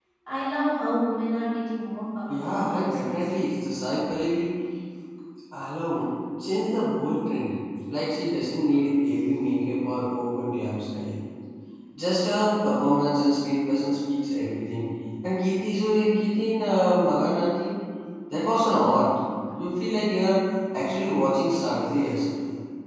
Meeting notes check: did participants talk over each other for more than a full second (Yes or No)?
Yes